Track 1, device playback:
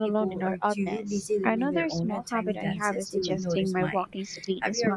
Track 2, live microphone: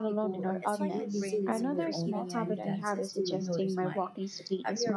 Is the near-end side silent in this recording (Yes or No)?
No